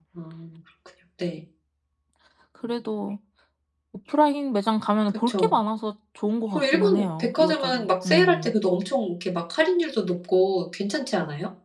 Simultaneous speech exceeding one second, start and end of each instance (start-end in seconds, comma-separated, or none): 6.5-8.5